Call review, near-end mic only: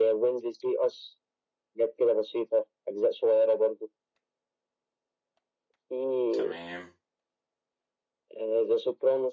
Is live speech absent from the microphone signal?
No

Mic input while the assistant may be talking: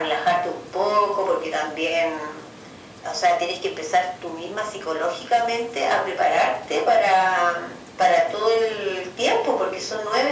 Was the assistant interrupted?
No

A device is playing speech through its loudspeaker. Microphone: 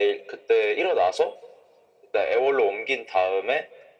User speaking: No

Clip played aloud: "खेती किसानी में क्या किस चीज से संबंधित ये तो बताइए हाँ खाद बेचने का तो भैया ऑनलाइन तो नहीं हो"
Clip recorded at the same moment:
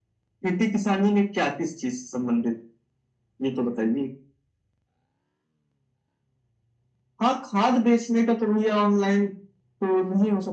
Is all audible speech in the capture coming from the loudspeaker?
Yes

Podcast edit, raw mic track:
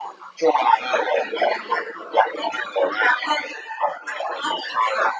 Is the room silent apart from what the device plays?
Yes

